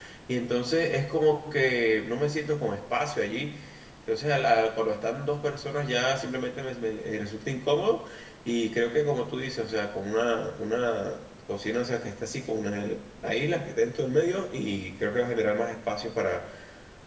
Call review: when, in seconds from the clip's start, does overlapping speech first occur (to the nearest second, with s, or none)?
none